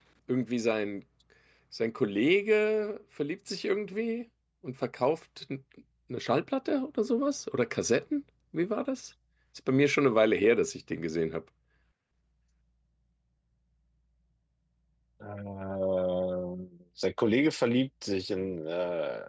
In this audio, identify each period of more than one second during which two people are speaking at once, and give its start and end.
none

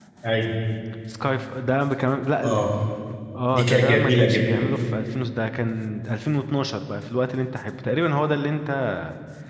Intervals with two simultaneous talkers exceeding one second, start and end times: 3.5-4.7

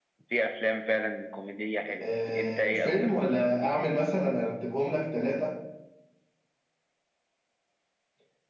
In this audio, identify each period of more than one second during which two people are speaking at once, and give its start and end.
2.0-4.0

